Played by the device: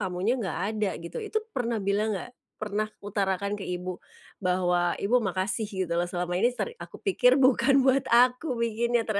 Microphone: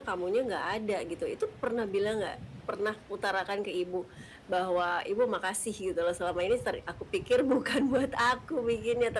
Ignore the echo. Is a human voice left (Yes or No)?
No